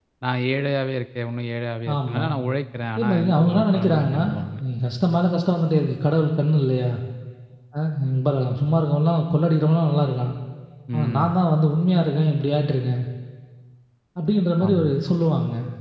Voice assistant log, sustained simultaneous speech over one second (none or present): present